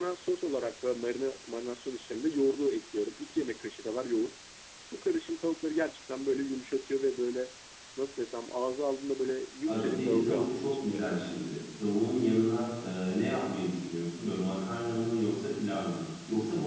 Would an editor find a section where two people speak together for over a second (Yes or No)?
Yes